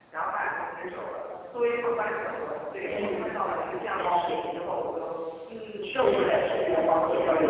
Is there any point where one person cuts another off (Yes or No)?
Yes